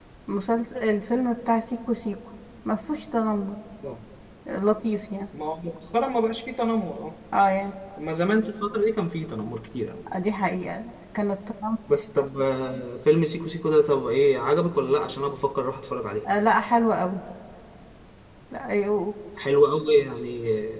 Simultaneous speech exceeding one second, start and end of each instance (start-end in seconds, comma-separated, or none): none